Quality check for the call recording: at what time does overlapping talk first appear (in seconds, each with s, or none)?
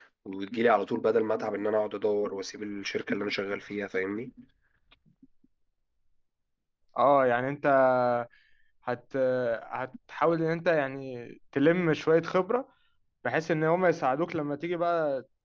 none